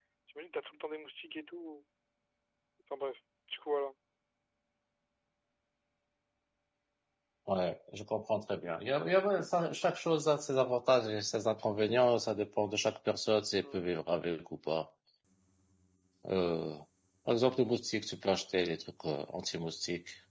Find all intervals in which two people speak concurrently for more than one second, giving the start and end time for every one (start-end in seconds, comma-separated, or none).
none